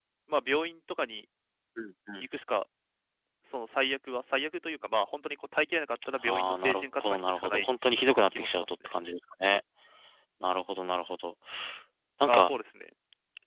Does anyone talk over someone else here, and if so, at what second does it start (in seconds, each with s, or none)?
6.2 s